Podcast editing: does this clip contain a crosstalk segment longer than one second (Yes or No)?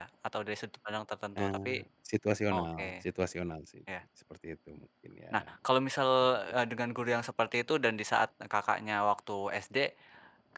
No